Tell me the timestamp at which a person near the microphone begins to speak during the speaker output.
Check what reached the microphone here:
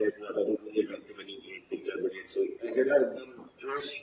none

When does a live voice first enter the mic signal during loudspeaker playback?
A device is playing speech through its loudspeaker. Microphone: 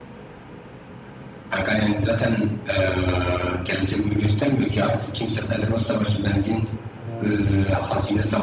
7.0 s

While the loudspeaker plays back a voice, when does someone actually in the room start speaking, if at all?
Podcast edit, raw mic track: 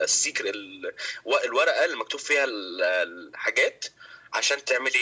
none

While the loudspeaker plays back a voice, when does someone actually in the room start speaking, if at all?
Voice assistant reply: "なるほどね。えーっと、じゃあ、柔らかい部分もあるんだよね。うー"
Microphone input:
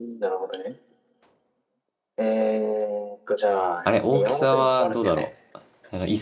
3.8 s

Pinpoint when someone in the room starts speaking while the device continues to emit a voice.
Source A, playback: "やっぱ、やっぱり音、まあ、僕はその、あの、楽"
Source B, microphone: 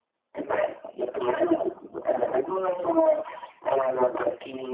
none

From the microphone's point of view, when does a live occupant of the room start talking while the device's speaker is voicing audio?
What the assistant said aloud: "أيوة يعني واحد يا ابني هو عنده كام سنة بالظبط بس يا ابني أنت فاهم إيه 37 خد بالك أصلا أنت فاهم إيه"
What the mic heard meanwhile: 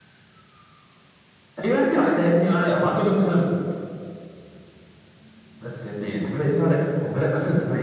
none

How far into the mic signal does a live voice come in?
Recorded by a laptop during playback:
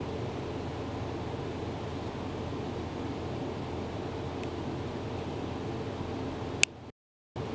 none

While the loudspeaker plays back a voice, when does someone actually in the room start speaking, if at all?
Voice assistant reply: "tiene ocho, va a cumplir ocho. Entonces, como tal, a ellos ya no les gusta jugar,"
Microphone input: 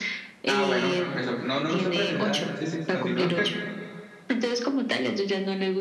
0.5 s

